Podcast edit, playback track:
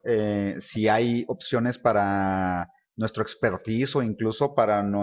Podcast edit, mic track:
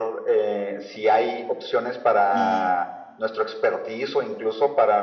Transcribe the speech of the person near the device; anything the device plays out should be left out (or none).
Y siete.